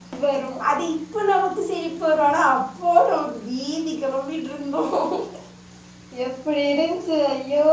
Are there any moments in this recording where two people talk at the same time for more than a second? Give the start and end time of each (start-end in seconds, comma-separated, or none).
none